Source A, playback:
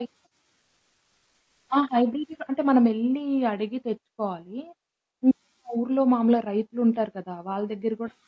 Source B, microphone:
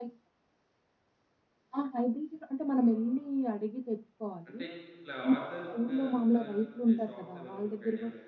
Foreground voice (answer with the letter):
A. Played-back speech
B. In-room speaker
A